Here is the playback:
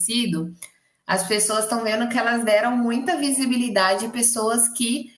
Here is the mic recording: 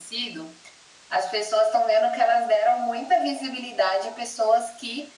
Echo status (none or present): present